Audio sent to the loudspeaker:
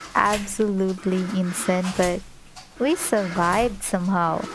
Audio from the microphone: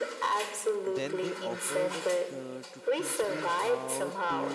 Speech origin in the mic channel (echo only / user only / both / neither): both